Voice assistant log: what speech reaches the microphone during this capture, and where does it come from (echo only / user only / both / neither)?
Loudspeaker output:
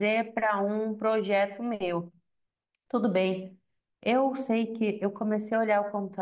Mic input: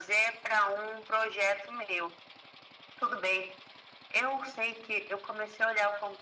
echo only